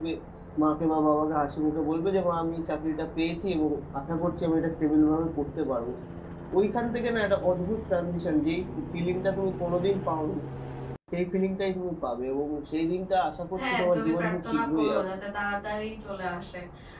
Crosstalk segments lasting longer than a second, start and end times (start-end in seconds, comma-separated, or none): 13.7-15.2